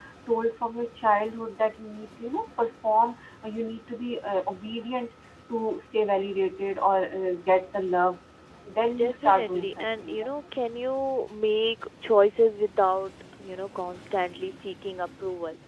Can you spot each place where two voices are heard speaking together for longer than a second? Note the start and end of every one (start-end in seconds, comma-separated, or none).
8.9-10.3